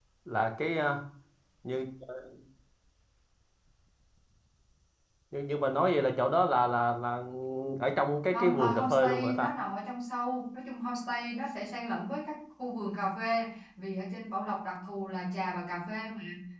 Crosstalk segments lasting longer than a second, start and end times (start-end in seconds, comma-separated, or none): 8.3-9.5